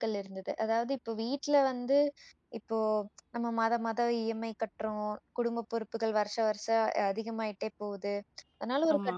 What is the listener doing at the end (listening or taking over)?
listening